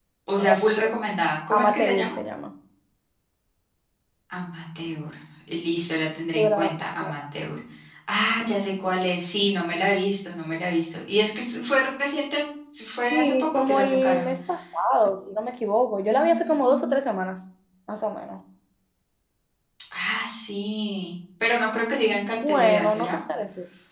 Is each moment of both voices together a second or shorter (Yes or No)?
No